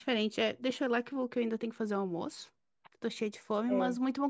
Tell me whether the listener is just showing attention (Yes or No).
Yes